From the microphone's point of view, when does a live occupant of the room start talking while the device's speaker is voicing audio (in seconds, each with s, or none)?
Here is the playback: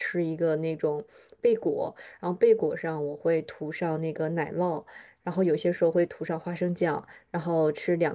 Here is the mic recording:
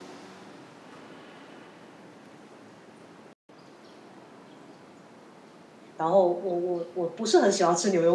5.9 s